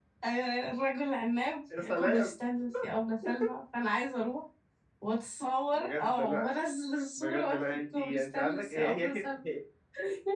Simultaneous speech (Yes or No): Yes